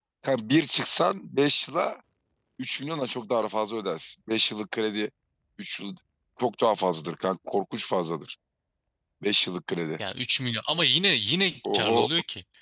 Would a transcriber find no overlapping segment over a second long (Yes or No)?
Yes